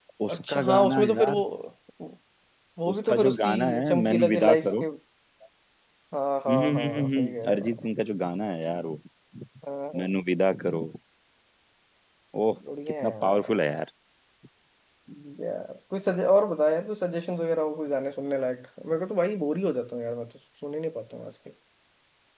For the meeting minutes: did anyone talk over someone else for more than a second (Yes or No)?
Yes